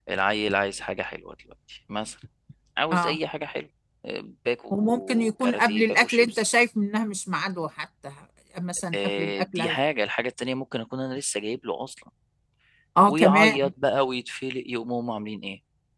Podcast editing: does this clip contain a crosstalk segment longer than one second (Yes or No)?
Yes